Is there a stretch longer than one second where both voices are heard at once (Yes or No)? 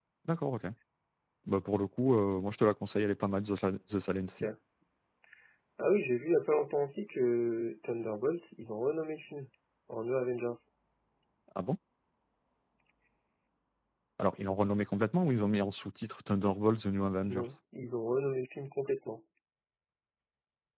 No